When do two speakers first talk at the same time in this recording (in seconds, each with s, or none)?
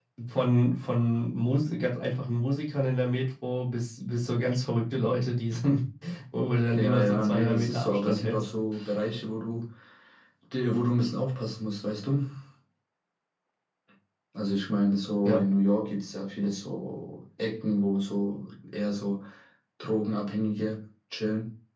6.7 s